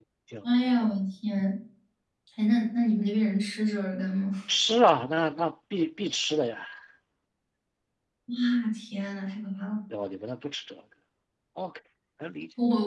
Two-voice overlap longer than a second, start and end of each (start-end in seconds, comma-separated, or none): none